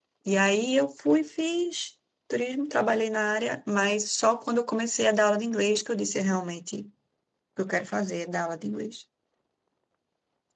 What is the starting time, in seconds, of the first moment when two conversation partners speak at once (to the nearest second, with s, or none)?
none